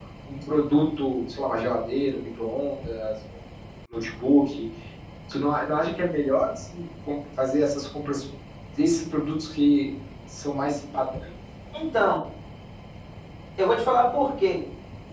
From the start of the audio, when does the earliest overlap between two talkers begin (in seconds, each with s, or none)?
none